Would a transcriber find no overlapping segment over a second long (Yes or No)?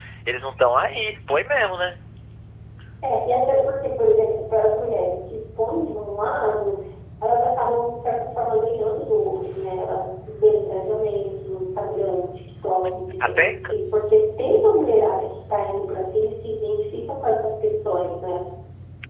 Yes